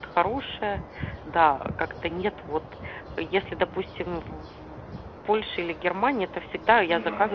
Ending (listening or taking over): listening